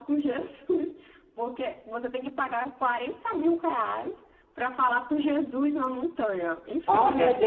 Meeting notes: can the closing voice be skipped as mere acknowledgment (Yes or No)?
No